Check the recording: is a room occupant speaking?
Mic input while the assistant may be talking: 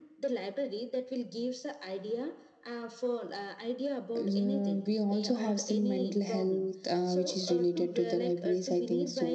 Yes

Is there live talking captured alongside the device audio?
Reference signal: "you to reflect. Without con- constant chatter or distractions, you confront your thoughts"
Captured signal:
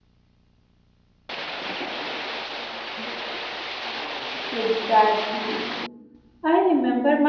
Yes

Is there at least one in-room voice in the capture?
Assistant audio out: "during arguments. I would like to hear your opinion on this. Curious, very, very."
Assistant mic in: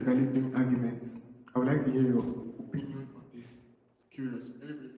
No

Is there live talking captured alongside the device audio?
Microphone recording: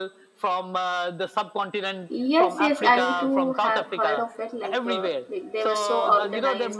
Yes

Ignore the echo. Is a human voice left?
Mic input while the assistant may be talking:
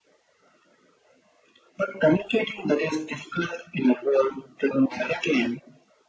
No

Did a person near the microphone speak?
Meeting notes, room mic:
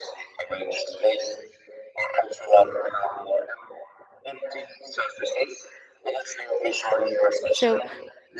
Yes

